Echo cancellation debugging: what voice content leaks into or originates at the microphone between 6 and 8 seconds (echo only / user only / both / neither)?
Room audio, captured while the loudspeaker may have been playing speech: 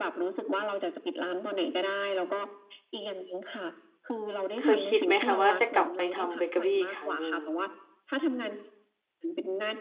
both